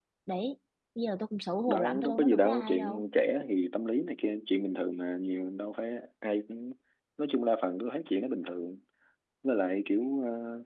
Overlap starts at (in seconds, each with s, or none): 1.7 s